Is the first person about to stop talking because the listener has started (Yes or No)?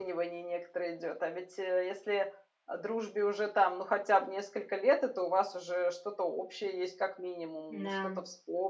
No